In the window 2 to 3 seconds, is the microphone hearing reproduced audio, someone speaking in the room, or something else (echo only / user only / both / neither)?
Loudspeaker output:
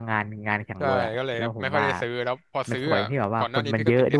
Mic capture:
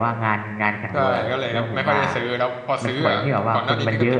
echo only